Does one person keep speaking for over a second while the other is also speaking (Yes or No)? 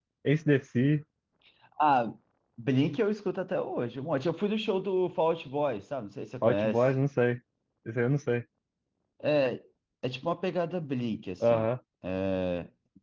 No